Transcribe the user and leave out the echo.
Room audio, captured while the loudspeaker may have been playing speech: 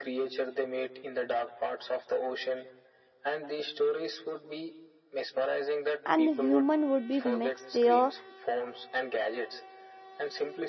and human would be mixed their

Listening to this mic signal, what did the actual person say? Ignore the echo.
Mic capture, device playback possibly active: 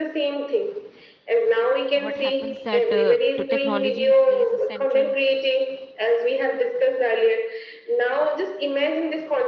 what happens that uh, to technology it plays a central

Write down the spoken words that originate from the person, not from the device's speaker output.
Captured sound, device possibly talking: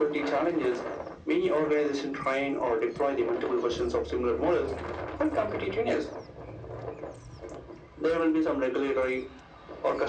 none

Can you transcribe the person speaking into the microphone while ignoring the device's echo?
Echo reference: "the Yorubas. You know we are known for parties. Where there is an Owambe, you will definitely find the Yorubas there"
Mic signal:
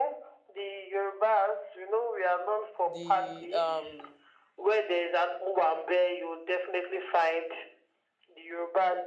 the um

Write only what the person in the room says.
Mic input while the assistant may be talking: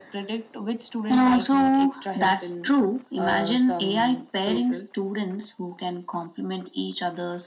none

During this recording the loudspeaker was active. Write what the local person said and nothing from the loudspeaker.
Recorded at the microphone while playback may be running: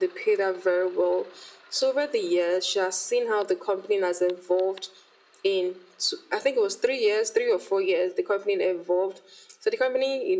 none

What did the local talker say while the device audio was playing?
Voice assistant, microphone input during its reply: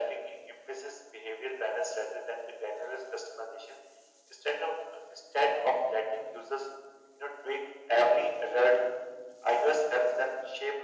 none

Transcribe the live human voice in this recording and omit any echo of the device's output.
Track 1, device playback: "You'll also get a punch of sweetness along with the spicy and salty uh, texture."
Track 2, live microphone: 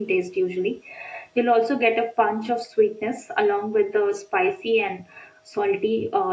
none

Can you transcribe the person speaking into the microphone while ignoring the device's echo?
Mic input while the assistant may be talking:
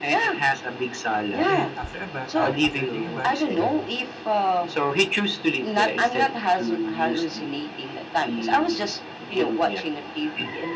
Then after a bath, uh, after taking a bath, then

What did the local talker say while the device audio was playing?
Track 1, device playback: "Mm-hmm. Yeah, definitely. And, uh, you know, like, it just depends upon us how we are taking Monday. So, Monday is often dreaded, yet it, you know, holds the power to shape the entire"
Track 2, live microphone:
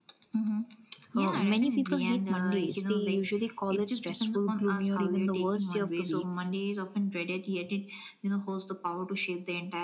uh, many people hate Mondays. They usually call it stressful, gloomy, or even the worst day of the week.

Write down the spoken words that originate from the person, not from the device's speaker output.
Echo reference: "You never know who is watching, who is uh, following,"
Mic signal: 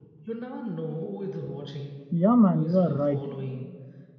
Yeah, man, you are right.

